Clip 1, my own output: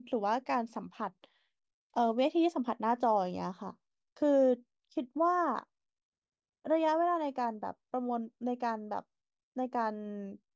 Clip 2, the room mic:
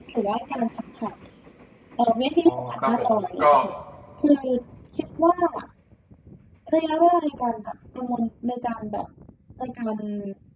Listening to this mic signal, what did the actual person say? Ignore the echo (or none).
อ๋อครับผมก็